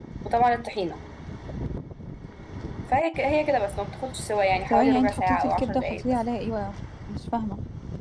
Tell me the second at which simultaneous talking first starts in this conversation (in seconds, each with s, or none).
4.7 s